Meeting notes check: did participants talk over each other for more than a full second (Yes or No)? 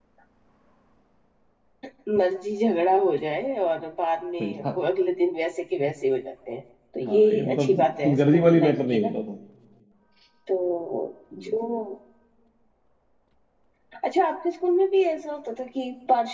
Yes